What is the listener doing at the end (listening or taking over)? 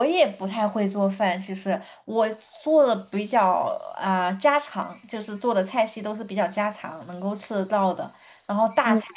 listening